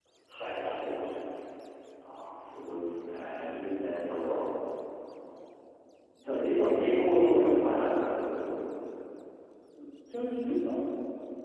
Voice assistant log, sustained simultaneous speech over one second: present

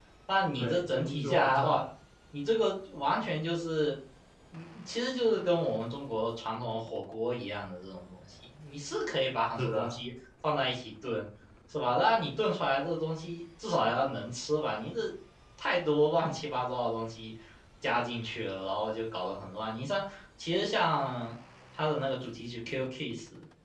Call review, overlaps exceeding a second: present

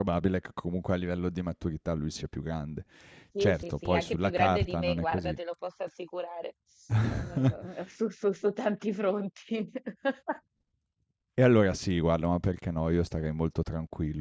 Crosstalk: present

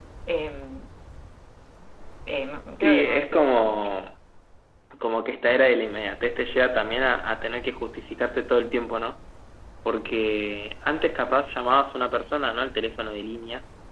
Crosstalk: present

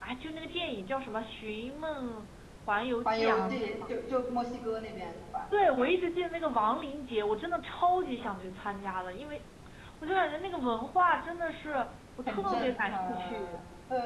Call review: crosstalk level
present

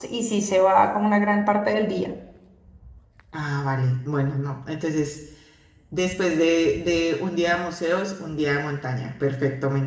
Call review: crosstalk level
none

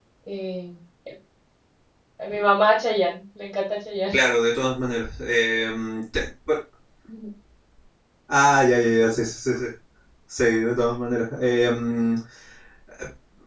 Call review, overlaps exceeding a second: none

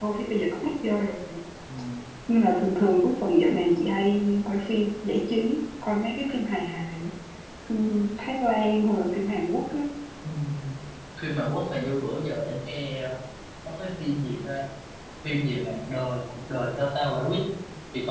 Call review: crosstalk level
none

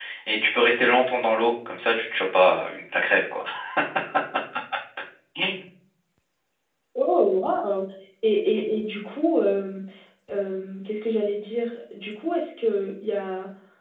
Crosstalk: none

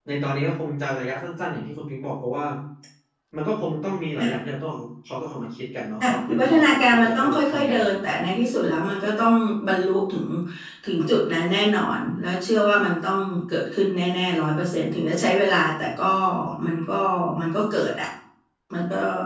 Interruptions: present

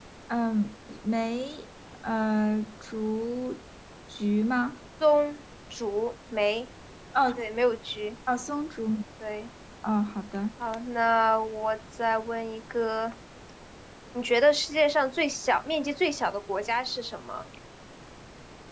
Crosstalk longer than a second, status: none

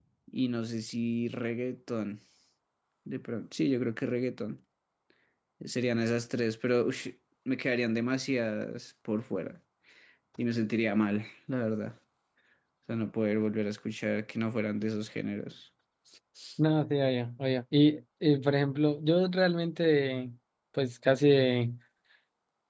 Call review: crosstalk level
none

